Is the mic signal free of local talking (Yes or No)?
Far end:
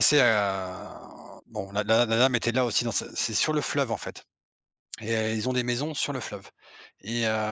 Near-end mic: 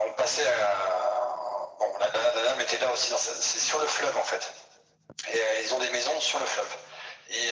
Yes